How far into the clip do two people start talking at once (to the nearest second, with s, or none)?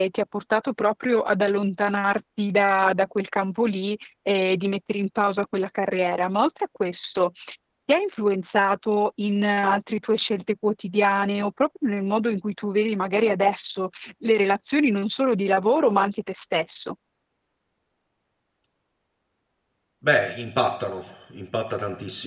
none